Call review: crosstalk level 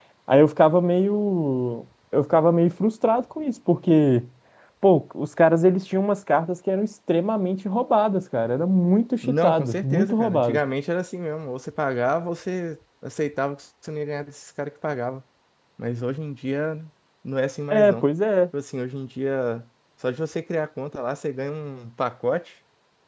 present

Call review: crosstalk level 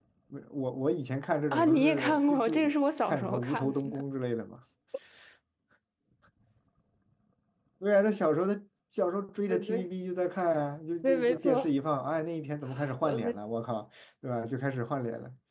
present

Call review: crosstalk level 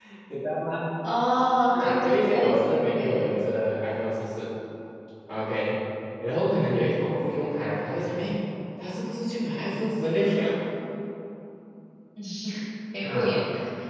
present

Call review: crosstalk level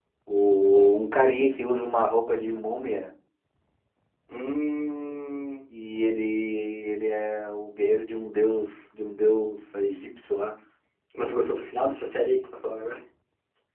none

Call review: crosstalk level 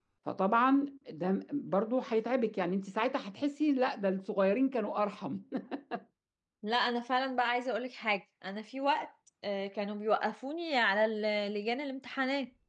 none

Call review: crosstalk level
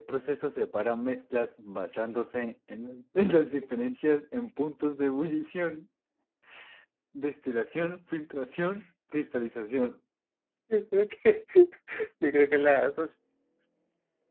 none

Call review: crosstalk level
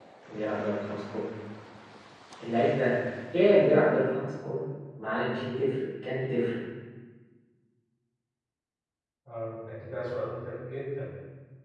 none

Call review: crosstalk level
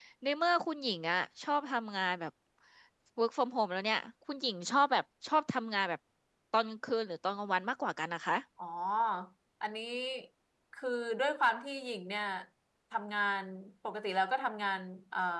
none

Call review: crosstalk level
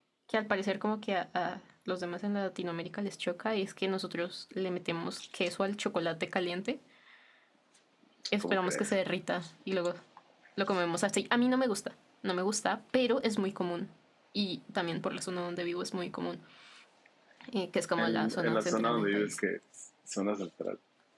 present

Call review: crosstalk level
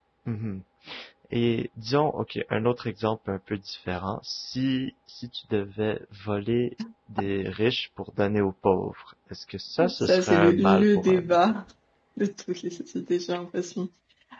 present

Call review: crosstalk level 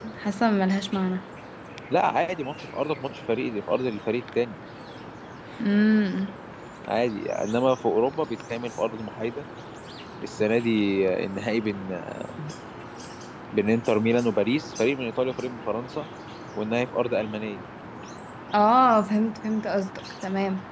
none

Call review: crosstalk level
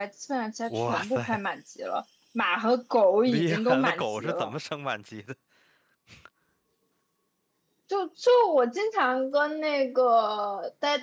present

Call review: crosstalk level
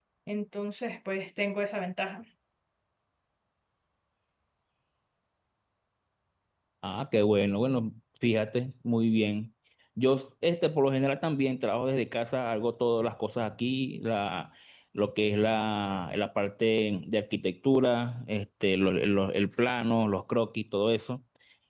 none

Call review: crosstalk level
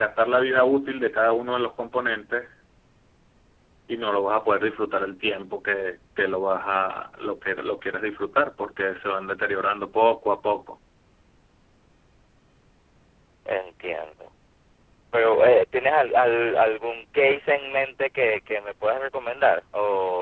none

